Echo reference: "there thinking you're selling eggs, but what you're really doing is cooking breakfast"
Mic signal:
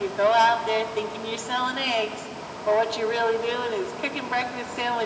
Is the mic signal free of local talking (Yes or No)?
Yes